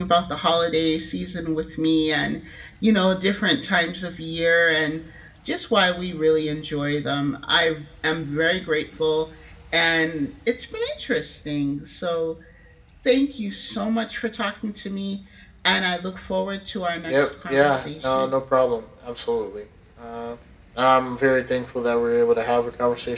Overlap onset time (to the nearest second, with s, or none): 17 s